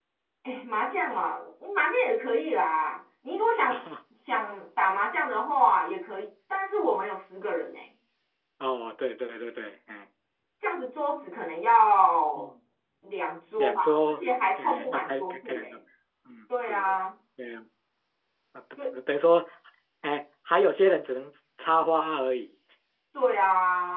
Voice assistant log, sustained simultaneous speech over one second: present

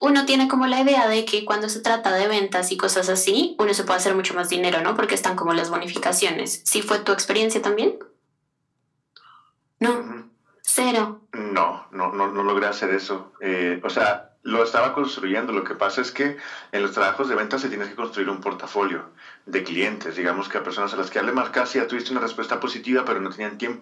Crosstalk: none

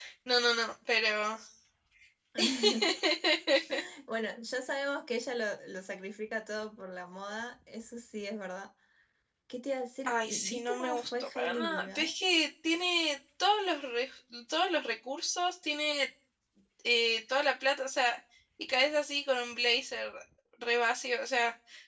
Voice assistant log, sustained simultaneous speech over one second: present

